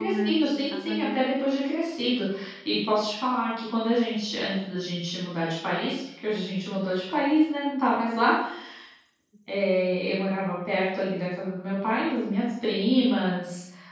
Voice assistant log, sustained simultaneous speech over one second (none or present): present